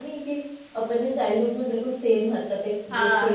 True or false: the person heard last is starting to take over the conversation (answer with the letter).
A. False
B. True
B